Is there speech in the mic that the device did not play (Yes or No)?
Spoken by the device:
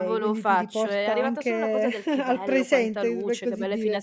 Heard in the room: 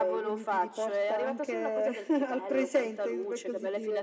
No